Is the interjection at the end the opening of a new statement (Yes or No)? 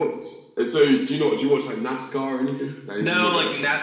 Yes